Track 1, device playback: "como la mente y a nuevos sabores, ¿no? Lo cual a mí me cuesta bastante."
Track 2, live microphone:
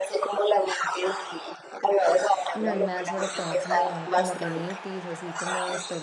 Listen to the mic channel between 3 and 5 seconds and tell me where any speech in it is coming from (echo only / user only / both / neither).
both